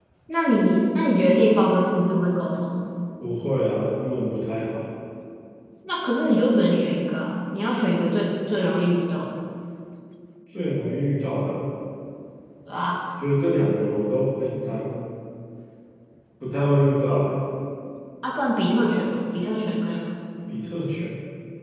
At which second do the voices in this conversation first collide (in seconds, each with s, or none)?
none